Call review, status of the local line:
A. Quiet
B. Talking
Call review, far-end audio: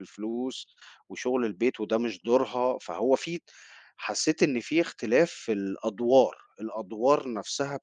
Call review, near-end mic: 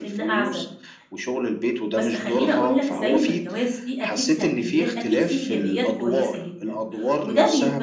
B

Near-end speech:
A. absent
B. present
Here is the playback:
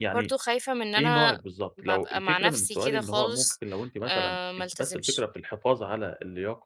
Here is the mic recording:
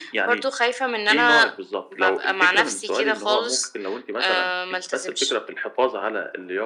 A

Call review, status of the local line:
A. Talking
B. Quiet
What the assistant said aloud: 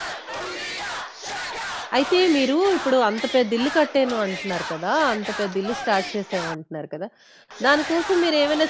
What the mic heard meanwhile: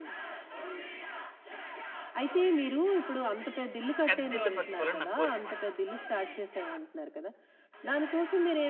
A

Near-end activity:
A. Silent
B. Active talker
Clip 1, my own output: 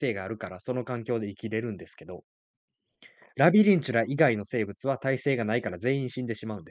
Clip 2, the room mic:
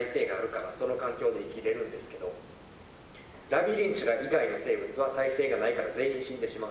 A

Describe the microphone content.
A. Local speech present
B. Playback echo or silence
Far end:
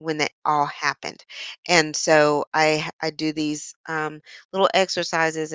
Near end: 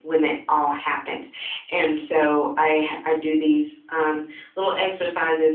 B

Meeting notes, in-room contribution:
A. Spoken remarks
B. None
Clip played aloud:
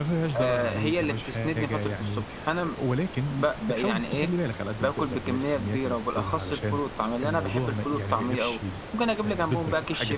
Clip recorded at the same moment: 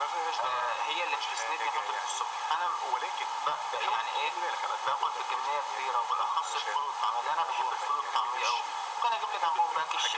B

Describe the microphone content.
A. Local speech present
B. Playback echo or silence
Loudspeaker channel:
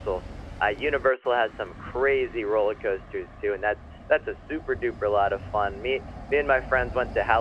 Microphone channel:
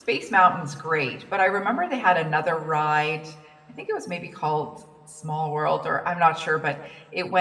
A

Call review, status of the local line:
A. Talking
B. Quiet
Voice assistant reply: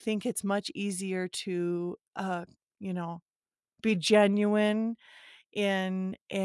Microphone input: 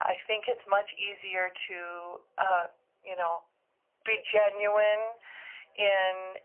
B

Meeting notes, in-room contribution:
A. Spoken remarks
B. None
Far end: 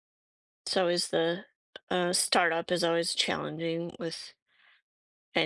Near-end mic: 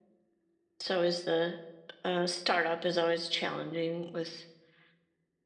B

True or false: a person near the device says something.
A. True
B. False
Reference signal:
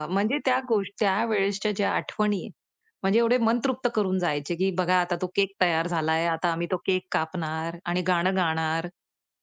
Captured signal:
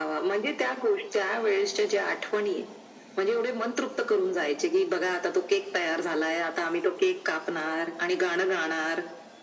B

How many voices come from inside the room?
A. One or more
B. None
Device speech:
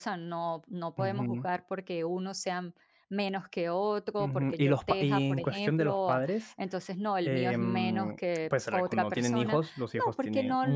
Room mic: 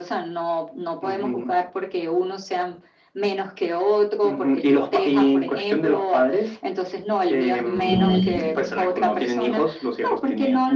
A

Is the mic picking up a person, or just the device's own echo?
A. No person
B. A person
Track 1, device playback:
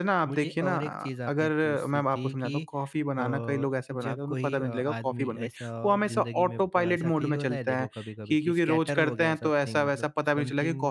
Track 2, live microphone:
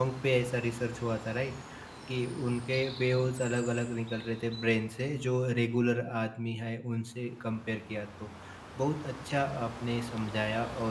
B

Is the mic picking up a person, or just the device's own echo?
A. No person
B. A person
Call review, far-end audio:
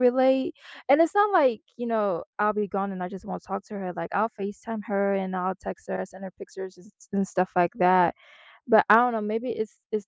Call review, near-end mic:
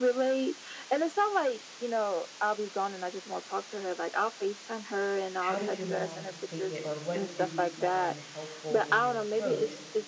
B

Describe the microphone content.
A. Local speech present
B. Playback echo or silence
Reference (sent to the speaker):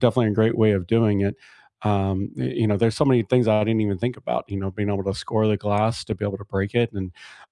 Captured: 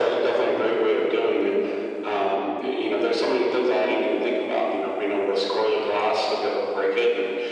B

